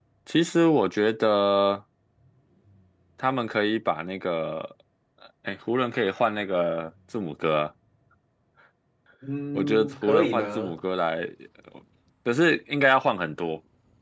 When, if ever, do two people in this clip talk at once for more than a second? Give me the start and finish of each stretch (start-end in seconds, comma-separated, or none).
9.5-10.8